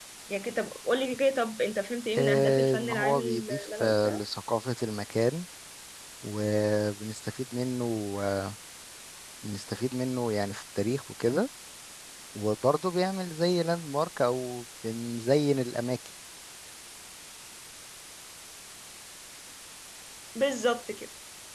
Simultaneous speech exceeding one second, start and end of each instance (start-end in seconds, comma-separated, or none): 2.2-4.2